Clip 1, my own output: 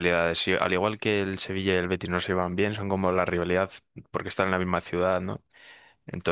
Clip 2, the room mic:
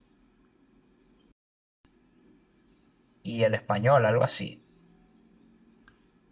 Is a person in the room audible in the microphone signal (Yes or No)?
Yes